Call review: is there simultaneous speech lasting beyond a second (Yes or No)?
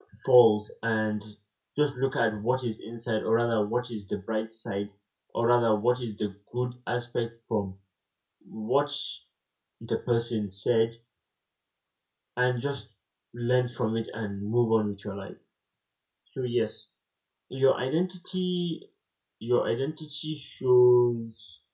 No